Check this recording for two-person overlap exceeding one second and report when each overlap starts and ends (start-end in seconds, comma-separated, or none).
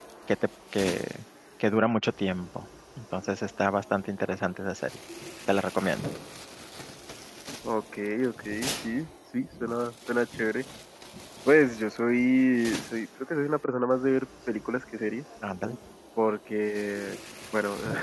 none